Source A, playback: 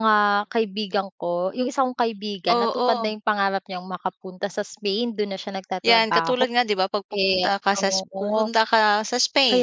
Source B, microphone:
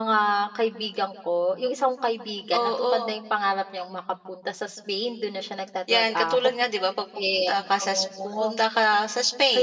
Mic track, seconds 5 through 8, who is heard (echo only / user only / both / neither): echo only